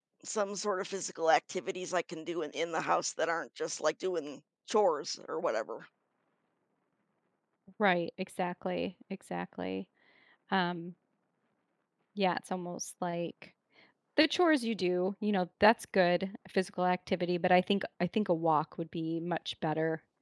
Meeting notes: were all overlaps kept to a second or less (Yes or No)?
Yes